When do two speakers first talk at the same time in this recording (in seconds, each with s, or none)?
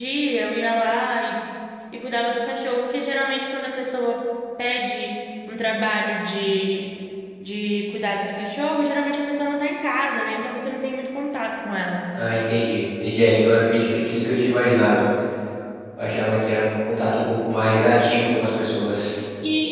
none